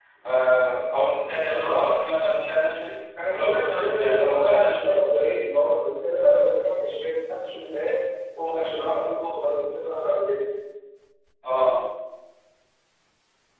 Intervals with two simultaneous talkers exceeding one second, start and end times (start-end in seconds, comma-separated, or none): 3.3-4.9